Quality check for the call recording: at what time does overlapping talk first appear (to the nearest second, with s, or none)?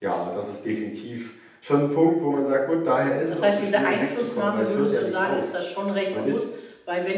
3 s